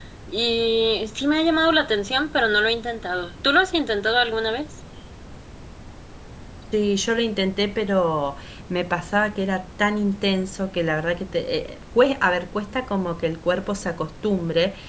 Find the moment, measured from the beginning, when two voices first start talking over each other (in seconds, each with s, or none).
none